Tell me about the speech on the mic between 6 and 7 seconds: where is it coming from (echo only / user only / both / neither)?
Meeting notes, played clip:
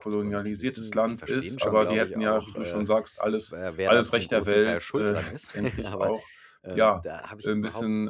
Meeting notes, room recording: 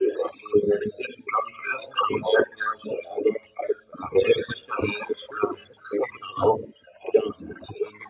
echo only